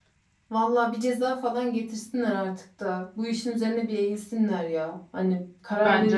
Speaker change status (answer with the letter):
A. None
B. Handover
A